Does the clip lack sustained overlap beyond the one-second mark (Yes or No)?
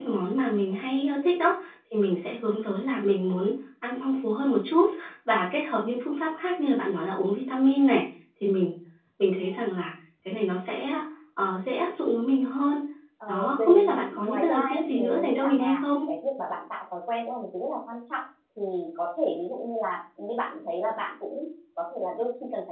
No